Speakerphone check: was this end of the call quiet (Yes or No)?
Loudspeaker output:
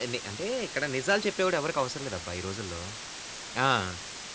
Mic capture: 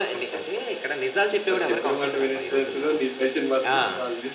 No